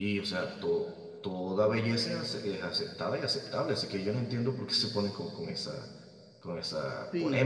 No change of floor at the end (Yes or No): No